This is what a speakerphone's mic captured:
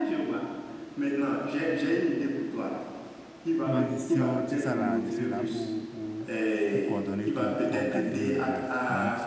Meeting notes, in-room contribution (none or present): present